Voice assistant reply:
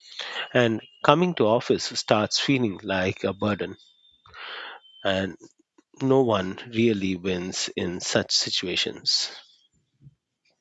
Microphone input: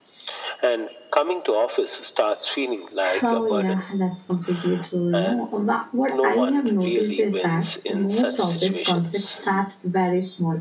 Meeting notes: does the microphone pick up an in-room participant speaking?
Yes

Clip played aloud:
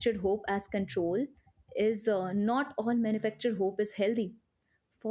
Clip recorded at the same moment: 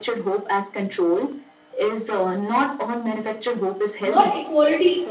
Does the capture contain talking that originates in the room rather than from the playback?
Yes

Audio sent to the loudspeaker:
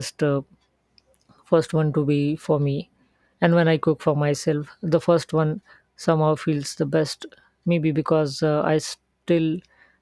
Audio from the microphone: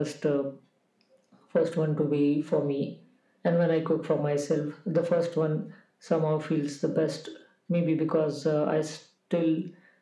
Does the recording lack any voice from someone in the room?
Yes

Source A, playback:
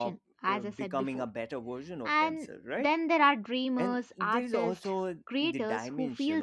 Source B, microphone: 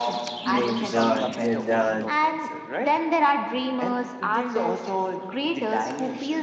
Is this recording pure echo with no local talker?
No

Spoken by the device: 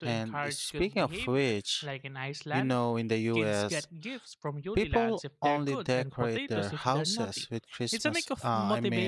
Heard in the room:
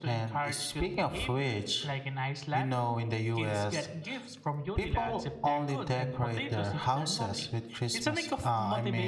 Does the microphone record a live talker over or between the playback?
No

